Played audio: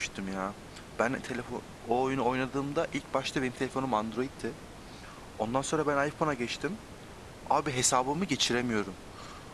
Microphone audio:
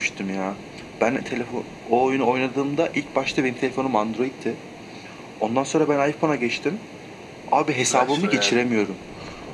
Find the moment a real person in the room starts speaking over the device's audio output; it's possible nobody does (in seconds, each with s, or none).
7.8 s